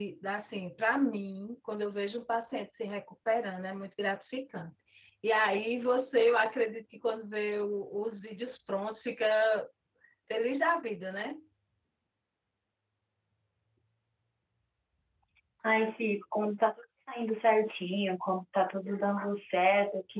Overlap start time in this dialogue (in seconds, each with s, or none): none